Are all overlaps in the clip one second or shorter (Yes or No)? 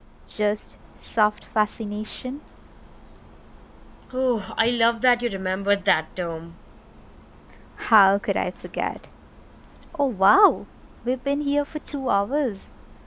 Yes